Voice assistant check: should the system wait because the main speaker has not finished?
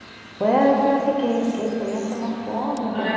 No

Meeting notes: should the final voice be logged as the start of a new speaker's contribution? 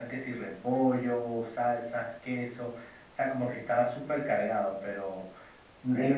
No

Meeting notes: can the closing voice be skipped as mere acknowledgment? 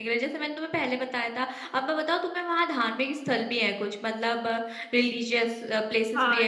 No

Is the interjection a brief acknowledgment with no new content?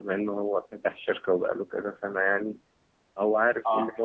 Yes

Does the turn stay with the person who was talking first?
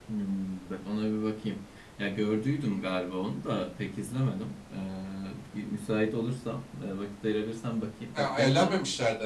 No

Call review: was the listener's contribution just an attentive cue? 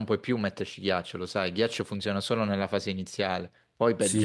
No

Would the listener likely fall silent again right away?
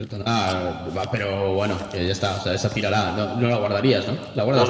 No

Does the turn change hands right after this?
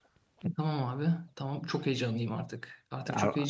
No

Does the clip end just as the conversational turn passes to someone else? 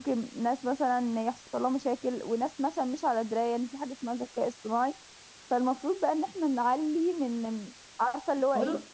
No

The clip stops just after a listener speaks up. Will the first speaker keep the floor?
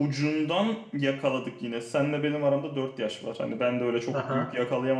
Yes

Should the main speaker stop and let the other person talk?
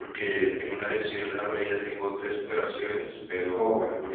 No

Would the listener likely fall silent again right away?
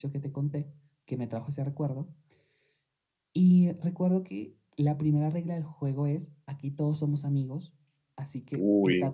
Yes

